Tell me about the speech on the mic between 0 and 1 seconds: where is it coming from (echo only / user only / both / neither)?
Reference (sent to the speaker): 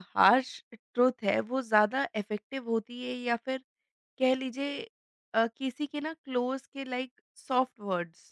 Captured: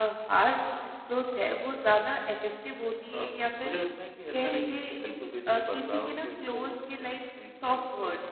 echo only